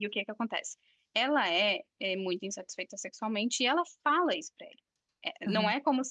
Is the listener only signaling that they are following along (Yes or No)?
No